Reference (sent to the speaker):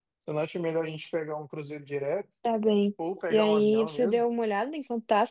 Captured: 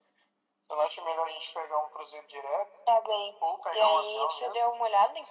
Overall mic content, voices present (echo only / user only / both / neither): echo only